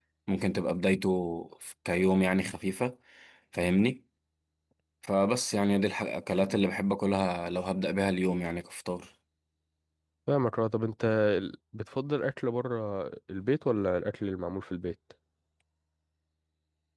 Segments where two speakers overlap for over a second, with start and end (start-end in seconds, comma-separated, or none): none